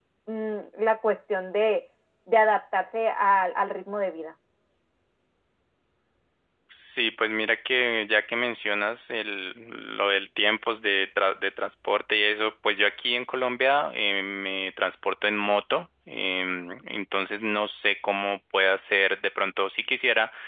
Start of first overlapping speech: none

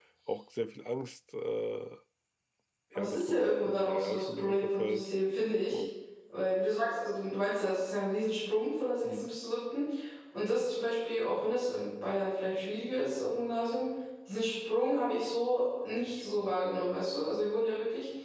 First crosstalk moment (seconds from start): 3 s

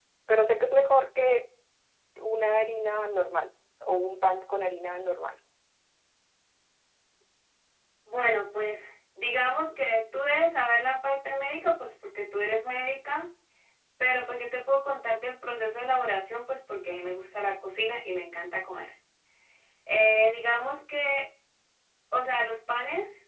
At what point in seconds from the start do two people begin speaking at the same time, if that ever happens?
none

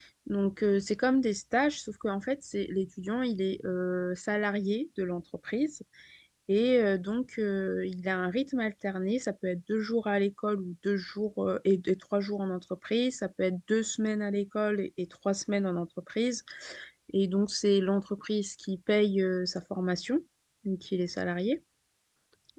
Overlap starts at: none

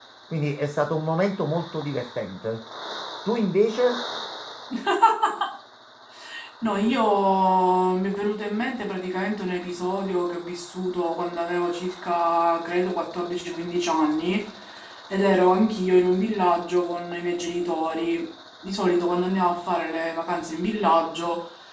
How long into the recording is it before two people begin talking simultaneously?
none

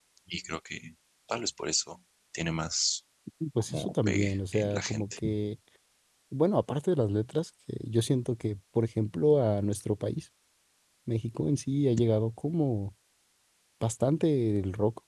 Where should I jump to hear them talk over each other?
4 s

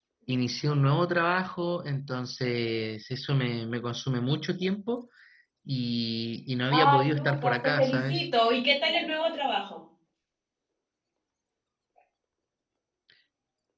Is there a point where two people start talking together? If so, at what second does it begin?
7 s

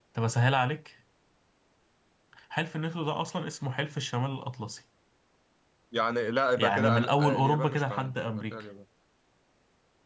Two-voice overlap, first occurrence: 7 s

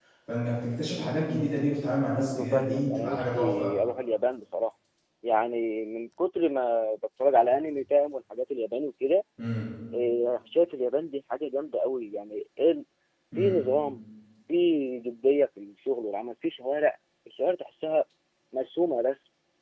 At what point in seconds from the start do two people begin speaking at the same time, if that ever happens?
2 s

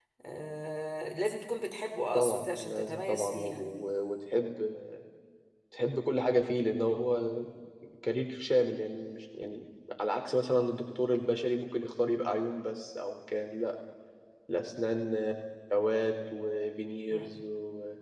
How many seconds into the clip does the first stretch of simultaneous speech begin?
2 s

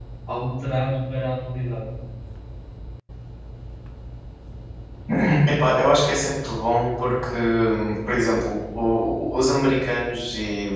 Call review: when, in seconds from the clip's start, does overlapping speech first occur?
none

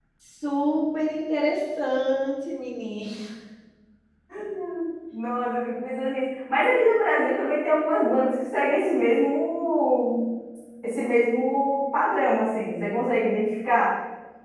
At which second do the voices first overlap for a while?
none

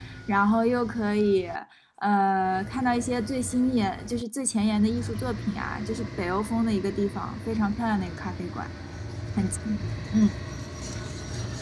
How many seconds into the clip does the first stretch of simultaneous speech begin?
none

